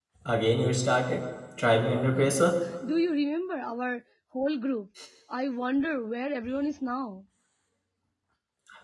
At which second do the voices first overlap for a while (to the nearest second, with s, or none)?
none